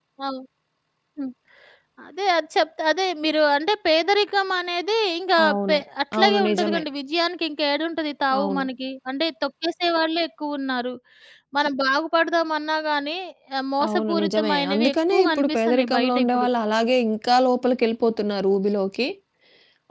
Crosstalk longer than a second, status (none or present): present